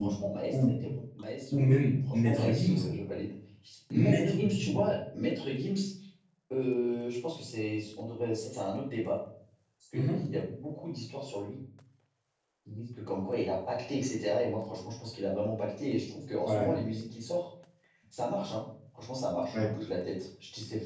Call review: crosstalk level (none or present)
present